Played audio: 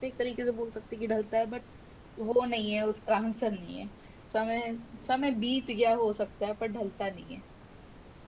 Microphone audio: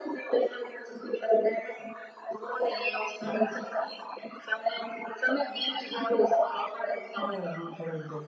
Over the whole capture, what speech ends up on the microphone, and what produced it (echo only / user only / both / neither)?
both